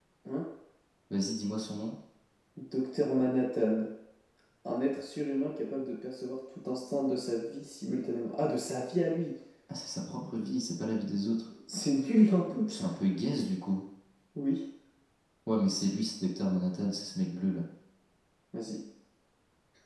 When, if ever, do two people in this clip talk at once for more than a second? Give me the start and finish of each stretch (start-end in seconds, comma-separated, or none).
none